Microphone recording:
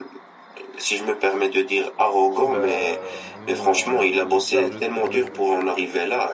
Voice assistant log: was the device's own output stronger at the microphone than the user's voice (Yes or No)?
Yes